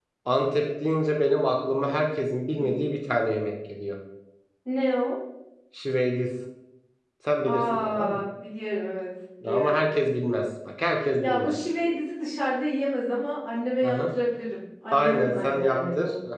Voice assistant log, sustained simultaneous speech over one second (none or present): present